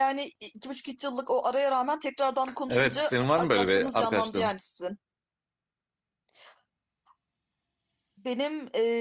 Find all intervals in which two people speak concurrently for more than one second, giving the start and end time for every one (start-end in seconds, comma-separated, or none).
2.7-4.5